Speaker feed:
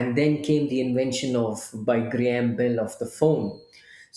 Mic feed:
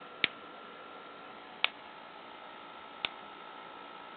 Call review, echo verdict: none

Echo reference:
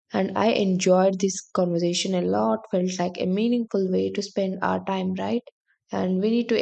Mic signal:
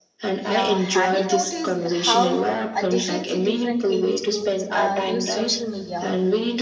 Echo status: present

